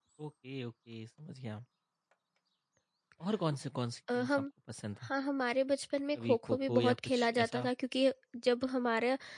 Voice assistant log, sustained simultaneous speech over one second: present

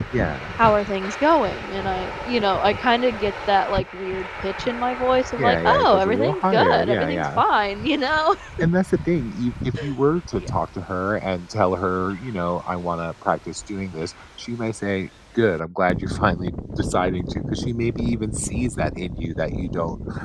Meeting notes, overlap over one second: present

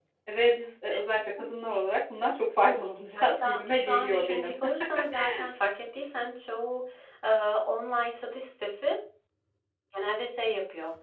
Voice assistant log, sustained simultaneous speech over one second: present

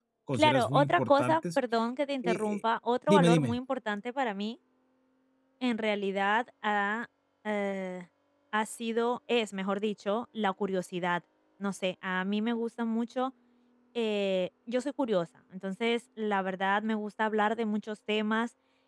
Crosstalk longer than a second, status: present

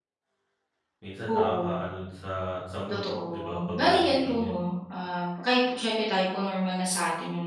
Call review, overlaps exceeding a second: present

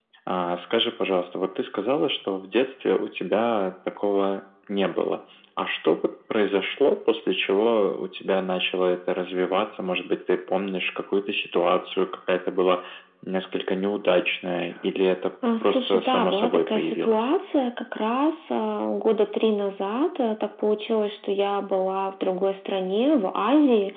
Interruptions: present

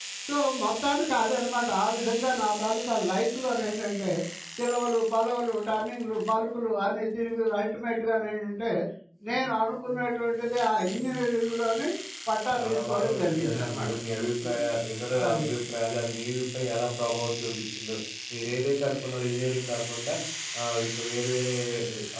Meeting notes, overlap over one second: present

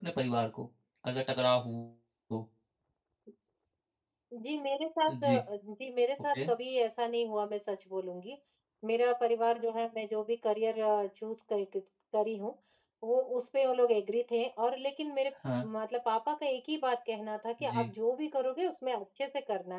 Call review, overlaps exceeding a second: none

